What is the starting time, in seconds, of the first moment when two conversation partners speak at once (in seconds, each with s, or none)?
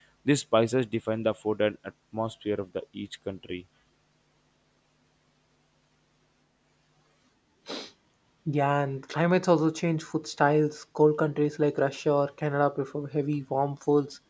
none